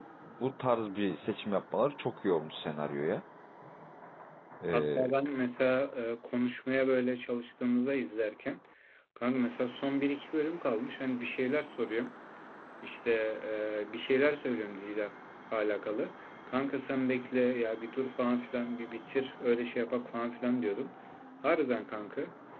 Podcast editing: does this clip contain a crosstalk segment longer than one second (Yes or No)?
No